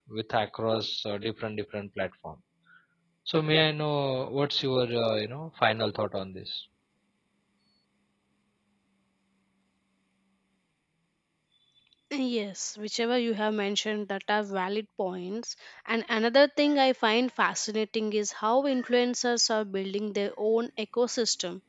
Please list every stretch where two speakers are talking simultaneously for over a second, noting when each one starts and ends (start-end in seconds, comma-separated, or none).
none